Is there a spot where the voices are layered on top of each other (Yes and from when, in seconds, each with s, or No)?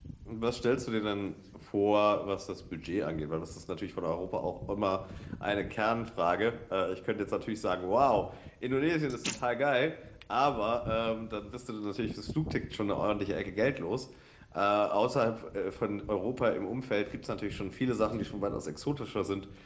No